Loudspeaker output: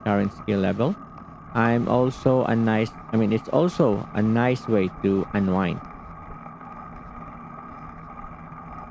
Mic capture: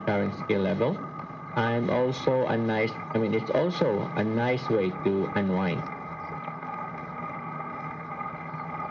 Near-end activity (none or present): none